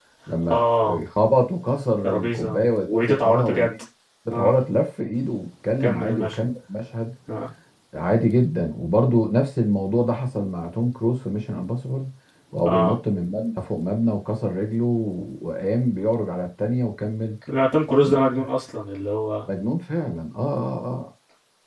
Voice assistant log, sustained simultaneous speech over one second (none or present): present